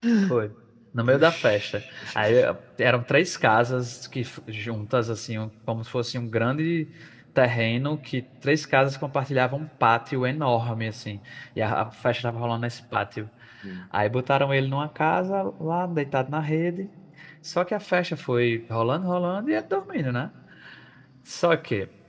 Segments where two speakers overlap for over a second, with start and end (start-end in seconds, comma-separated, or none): 1.1-2.4